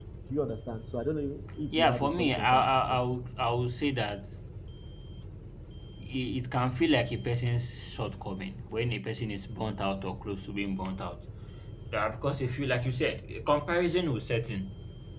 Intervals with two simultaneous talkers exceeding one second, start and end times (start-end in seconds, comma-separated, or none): 1.7-3.0